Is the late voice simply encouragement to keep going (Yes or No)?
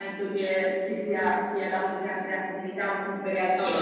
No